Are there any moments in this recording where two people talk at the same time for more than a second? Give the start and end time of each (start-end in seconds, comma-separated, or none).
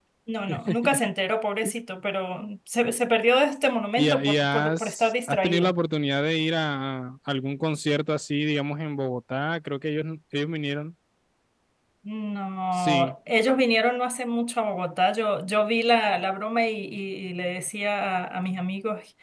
4.0-5.7